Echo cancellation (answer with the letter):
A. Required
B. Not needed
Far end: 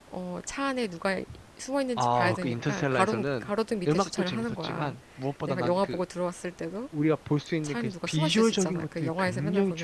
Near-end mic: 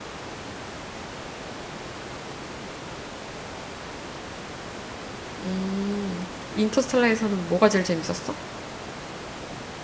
B